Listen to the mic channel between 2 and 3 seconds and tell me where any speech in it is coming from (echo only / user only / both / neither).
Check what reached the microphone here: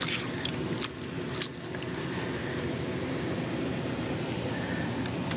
neither